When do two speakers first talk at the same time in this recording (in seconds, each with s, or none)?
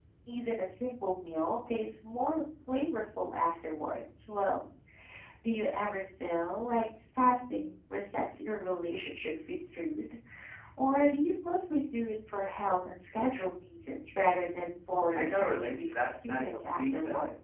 15.2 s